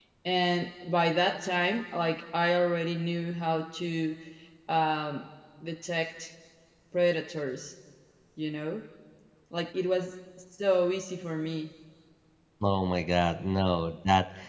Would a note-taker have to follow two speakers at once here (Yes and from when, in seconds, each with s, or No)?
No